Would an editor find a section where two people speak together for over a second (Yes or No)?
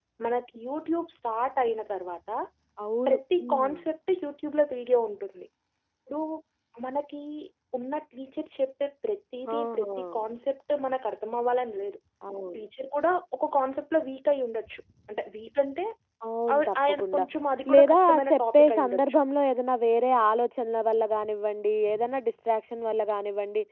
Yes